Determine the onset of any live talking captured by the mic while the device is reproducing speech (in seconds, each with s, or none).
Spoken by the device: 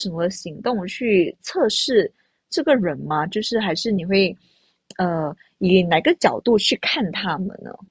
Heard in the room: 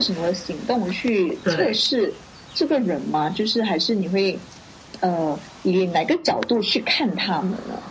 1.4 s